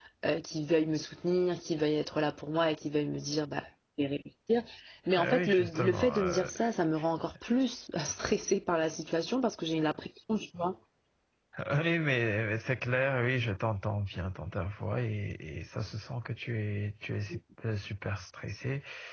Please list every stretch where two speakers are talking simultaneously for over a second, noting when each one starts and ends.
5.2-6.5

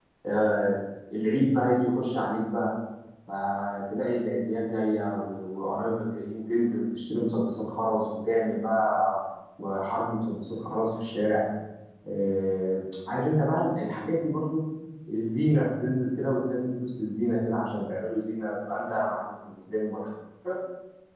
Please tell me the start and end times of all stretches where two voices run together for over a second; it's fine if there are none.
none

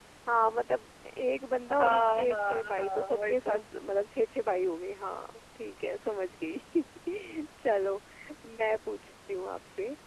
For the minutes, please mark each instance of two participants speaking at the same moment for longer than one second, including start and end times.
1.8-3.6

